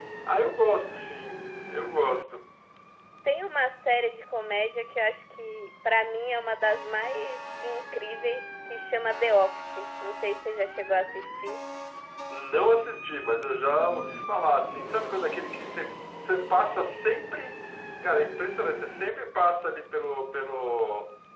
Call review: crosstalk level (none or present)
none